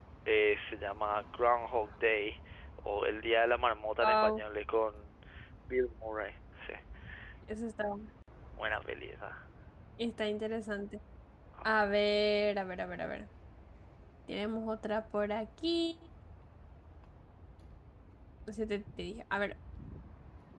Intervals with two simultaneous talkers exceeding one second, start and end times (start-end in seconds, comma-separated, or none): none